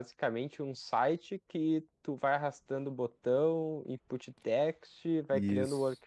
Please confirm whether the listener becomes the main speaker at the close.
No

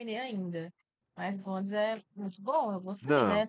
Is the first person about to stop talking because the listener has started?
No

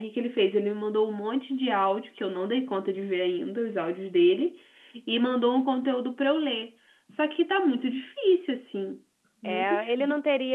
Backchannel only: No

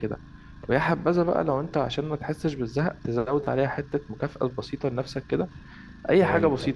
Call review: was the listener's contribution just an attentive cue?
Yes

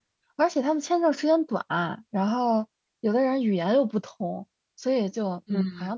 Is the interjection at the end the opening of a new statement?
No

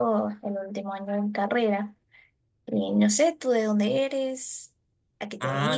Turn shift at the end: Yes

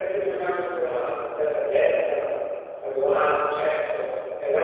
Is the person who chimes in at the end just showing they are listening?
Yes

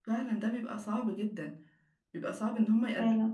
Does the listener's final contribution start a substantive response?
No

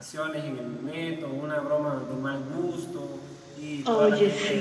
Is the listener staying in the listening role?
Yes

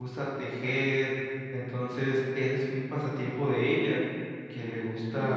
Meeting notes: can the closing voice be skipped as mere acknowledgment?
Yes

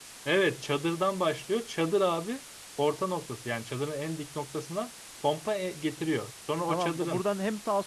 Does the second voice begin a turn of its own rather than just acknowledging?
Yes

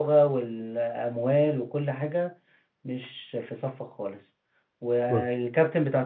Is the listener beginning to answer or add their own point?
No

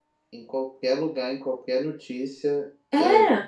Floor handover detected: No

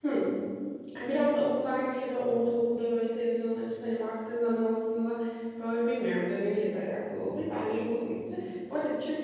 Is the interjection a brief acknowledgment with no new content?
Yes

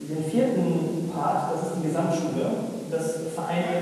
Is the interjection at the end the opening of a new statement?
No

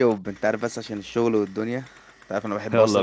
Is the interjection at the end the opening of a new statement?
Yes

